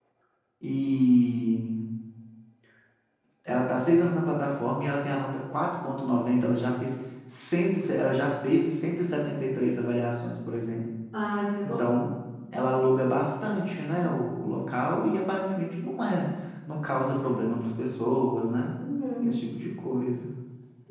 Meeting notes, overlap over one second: none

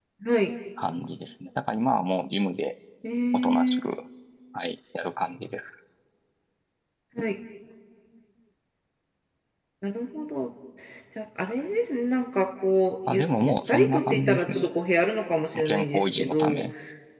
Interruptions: present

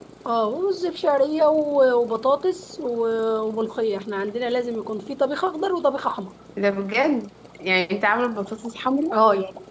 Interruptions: none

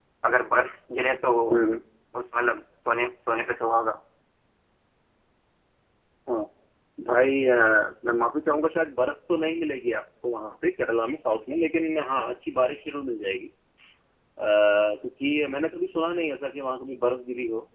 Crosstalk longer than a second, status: none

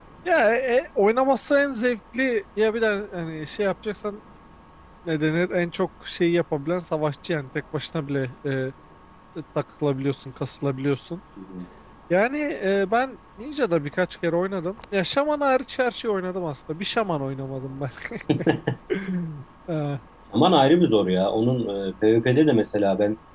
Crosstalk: none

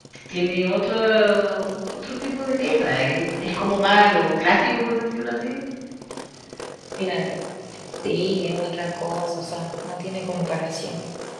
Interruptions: none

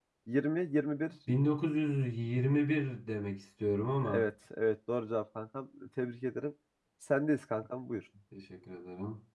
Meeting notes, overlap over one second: none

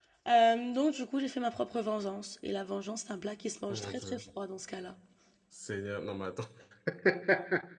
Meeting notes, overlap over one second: none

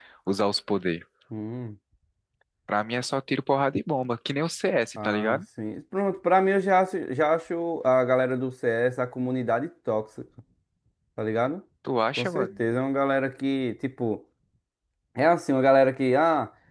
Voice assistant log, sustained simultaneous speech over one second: none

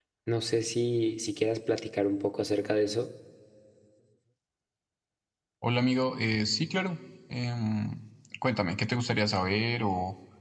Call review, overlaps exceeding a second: none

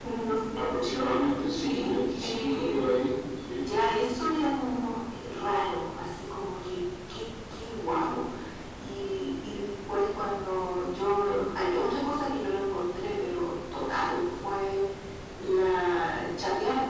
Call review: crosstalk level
present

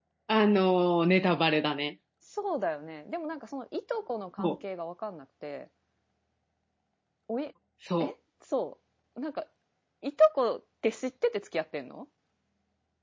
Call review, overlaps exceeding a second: none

